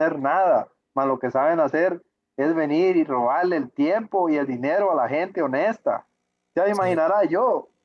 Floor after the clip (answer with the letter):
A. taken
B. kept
B